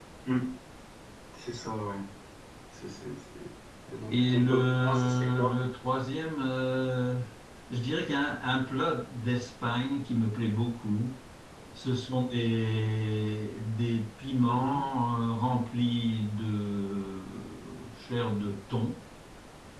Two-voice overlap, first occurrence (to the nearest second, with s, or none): 4 s